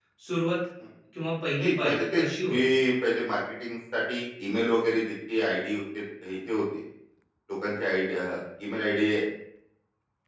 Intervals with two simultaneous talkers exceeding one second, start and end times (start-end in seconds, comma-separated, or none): 1.6-2.8